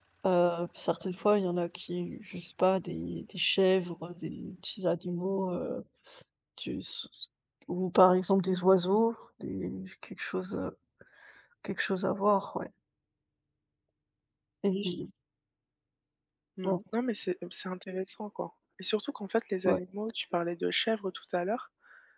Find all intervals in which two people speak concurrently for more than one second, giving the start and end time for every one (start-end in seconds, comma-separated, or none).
none